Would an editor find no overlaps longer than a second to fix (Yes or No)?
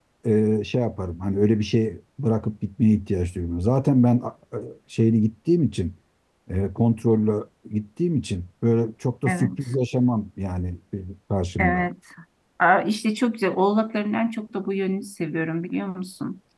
Yes